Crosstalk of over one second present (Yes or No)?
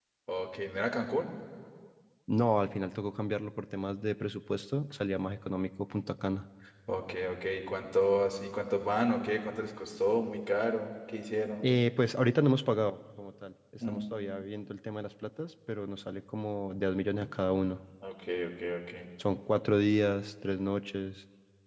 No